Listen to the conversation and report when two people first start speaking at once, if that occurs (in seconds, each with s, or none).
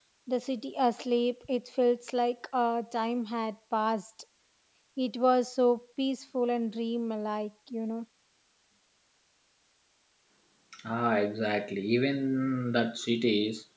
none